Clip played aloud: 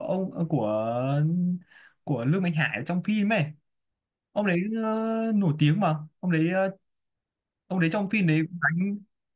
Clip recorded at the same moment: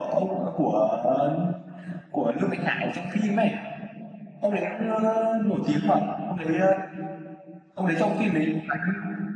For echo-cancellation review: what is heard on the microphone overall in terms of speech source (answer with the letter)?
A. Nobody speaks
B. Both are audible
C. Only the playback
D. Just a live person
C